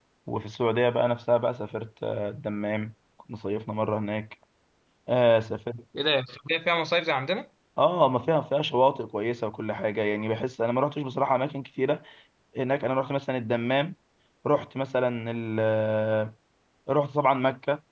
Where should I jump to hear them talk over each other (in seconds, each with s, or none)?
none